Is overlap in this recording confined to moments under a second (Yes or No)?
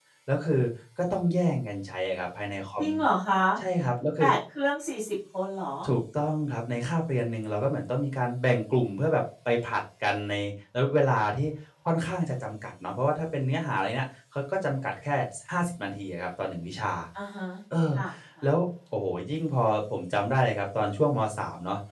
Yes